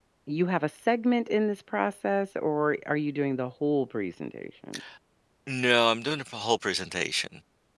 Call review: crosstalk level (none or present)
none